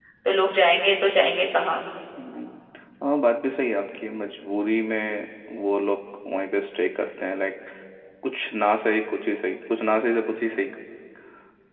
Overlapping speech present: No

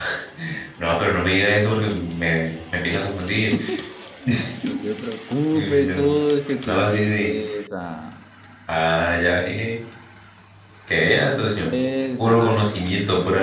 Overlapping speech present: Yes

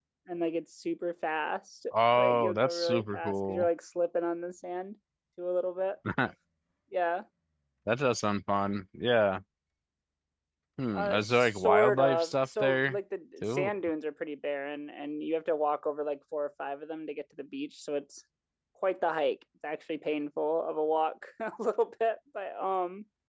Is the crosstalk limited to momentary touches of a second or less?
No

